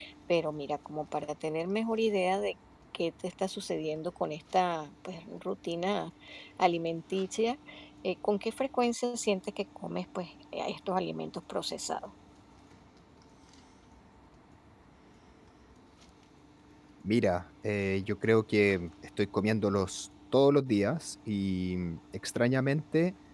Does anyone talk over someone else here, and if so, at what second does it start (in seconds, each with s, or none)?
none